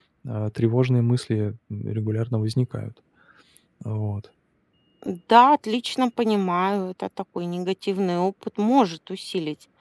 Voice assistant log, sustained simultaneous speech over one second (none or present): none